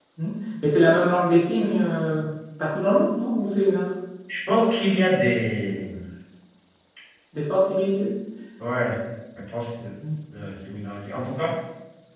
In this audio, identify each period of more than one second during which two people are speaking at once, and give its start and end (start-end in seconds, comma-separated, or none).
none